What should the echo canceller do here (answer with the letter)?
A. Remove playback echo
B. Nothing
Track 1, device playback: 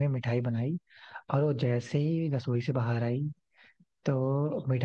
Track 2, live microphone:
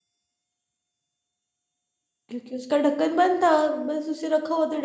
B